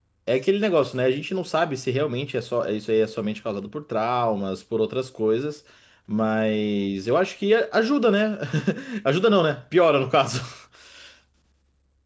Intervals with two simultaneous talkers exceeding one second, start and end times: none

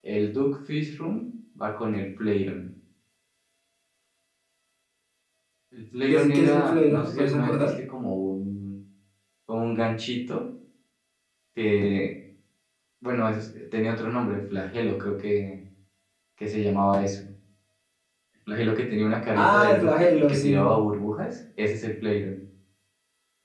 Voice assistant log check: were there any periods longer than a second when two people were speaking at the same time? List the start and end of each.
6.1-7.7, 19.3-20.6

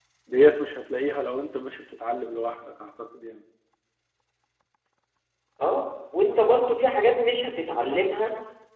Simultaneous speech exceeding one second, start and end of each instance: none

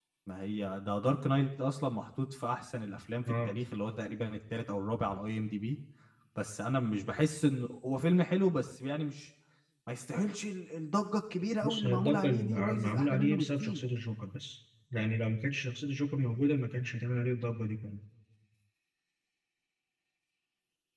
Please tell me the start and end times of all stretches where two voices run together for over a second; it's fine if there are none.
11.6-13.8

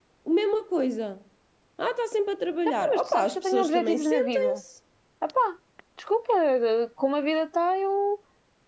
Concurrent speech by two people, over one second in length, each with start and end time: 2.9-4.6

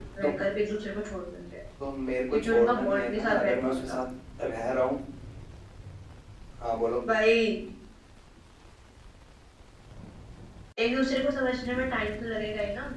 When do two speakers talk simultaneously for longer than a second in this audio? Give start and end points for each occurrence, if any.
2.3-4.0

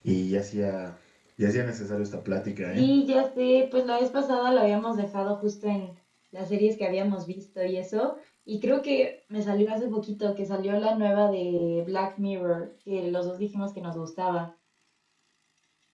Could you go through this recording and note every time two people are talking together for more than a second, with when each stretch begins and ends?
none

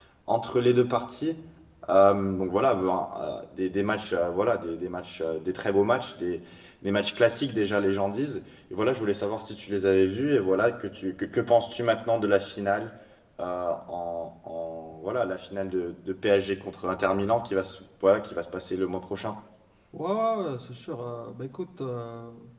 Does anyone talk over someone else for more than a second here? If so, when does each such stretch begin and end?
none

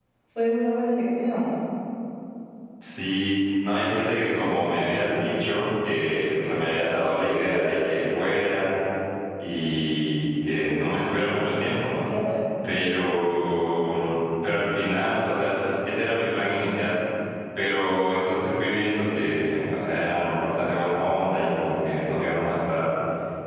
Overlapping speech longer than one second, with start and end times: none

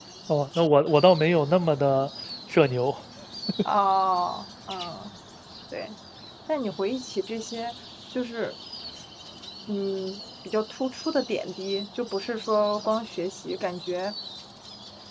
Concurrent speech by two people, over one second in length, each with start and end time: none

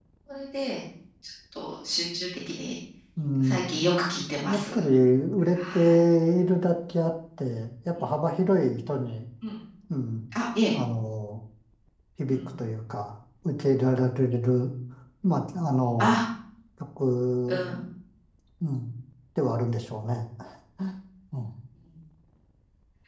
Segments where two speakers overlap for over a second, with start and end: none

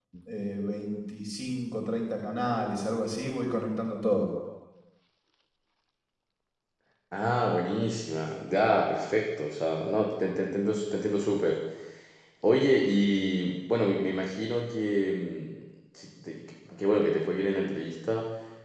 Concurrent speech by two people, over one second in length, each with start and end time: none

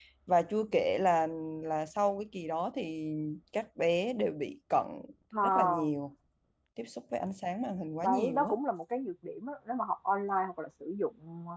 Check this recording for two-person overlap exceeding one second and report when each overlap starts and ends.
none

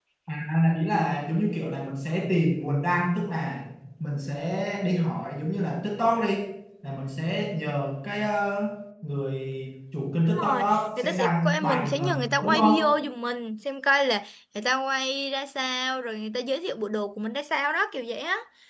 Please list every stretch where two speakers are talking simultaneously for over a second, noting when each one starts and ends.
10.3-12.7

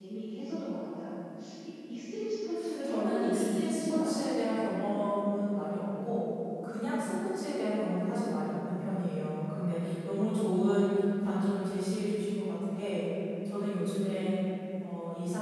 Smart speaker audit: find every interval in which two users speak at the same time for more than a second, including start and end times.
2.8-4.2

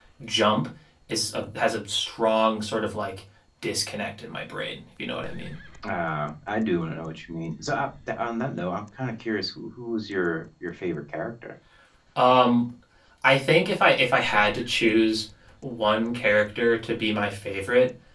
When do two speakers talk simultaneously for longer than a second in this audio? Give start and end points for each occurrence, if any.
none

